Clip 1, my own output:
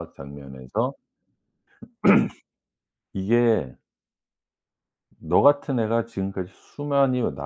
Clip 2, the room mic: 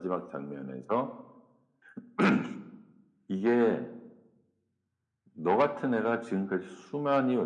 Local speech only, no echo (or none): none